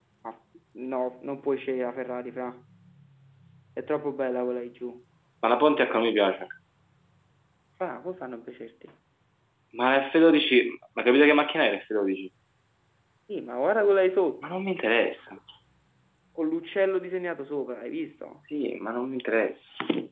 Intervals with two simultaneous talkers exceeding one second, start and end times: none

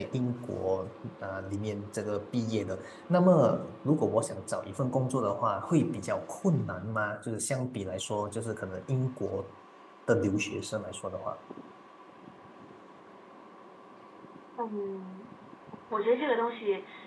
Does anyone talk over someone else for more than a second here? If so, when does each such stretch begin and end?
none

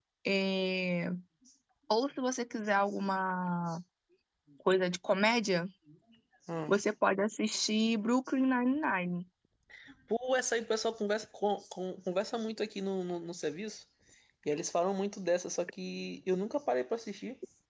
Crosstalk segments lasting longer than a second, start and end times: none

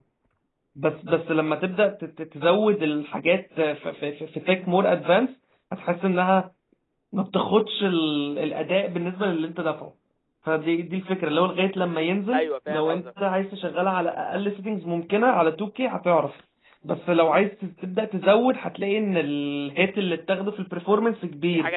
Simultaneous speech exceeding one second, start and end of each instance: 11.8-13.1

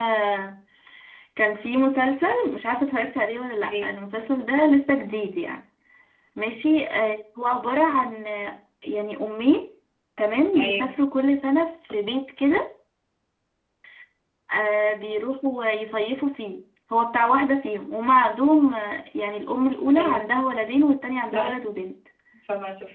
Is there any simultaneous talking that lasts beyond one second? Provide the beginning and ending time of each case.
none

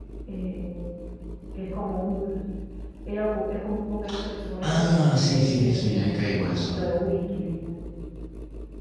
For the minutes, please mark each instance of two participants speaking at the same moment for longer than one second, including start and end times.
4.6-6.8

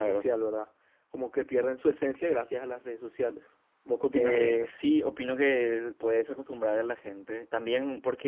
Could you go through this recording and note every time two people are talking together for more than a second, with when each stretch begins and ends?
none

